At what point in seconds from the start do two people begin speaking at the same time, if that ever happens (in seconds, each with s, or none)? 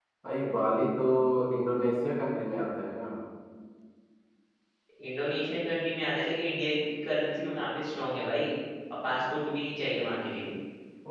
none